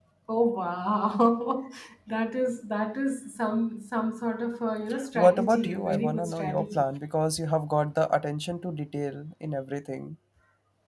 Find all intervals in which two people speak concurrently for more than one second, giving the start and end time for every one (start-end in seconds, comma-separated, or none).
5.2-6.8